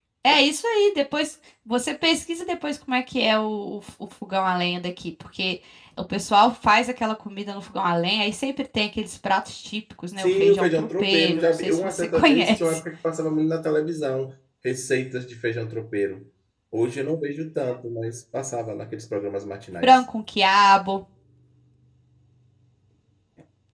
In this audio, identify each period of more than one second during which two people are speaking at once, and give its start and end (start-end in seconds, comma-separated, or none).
10.2-12.8